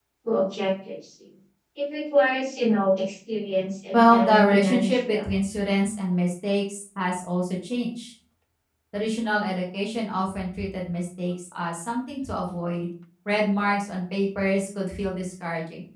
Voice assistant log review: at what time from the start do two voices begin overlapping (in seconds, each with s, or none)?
3.9 s